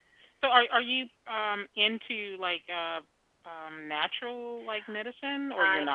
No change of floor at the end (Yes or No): No